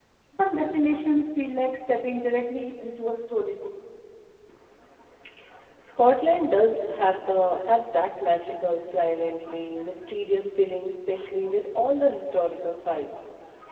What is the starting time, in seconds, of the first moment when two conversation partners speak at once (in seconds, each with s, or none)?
none